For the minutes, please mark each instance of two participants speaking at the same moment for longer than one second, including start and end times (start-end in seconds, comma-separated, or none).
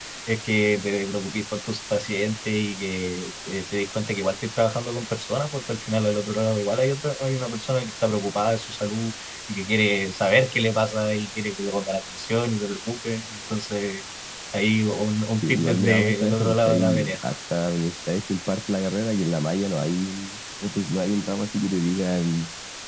15.4-17.2